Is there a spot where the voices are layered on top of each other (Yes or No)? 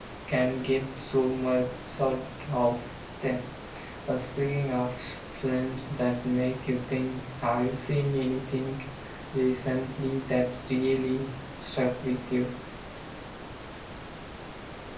No